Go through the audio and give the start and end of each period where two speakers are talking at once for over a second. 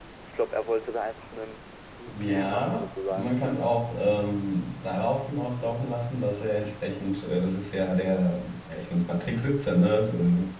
2.1-3.4

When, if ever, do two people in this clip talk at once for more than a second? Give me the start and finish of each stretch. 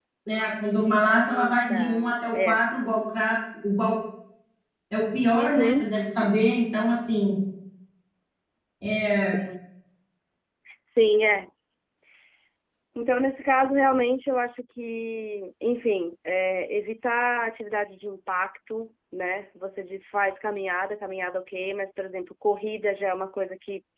1.3-2.6

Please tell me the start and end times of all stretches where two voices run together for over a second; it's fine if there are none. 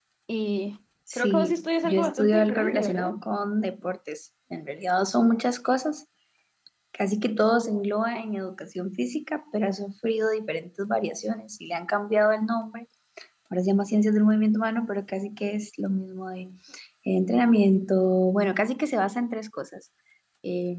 1.1-3.1

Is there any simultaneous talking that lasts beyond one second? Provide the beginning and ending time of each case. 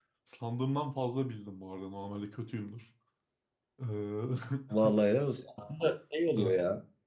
none

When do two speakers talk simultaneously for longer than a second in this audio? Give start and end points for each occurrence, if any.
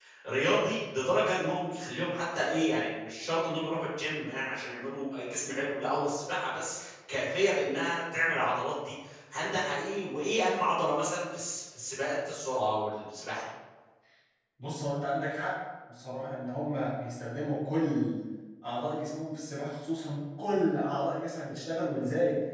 none

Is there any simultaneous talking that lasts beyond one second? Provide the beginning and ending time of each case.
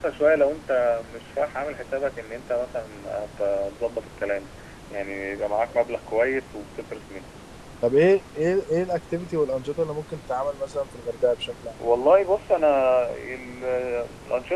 none

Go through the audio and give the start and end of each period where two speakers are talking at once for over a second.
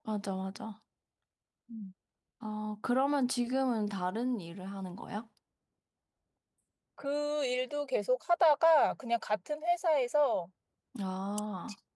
none

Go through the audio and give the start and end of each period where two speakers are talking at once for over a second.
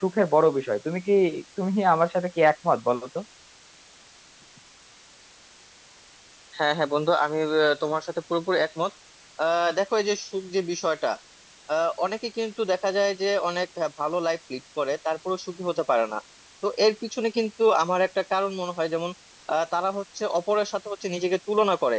none

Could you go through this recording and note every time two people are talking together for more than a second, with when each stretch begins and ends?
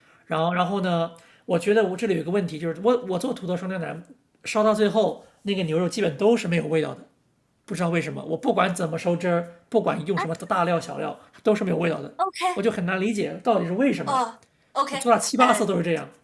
none

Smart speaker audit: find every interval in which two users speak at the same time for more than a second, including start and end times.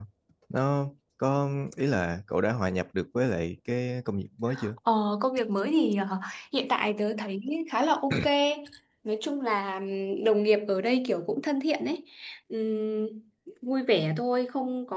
none

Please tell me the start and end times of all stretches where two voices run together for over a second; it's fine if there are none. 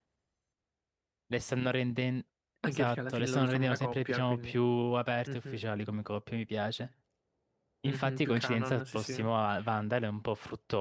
2.6-4.5, 7.8-9.1

